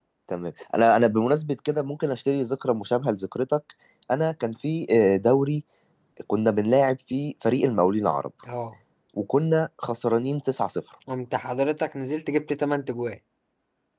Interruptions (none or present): none